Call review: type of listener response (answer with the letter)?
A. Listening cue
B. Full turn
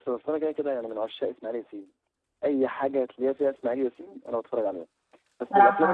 A